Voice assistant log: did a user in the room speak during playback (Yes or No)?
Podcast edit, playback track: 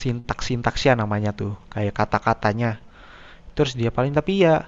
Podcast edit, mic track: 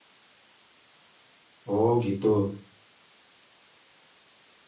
Yes